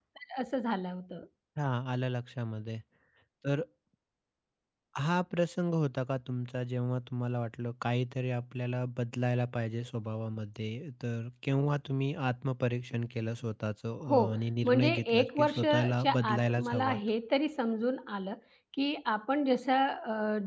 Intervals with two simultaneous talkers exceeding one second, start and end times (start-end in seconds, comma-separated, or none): 14.6-17.0